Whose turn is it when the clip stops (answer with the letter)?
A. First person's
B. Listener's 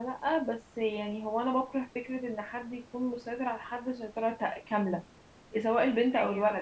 A